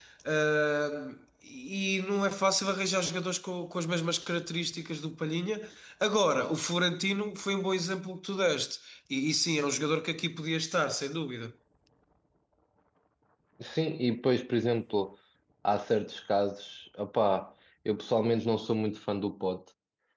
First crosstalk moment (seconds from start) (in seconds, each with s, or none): none